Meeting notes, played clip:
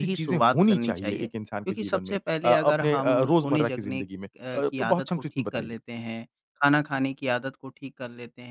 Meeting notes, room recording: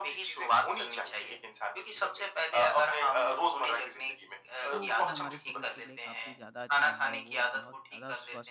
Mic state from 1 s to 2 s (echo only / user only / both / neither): echo only